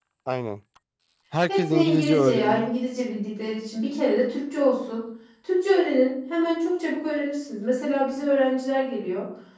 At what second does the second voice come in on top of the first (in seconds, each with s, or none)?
1.5 s